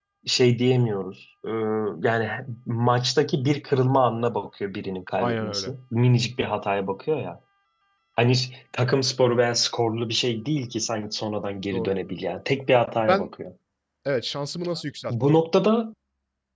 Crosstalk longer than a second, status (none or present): none